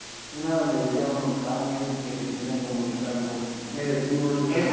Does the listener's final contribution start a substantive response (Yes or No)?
Yes